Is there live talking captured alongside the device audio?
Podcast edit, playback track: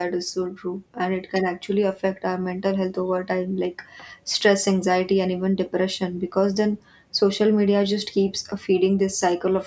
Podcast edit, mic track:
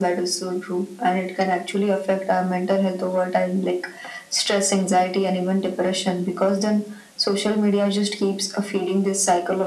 No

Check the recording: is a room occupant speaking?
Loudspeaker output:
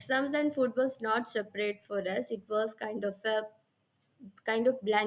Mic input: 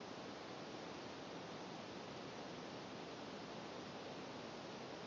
No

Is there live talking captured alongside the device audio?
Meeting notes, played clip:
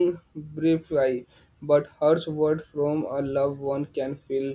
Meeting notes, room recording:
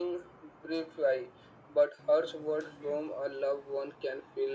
No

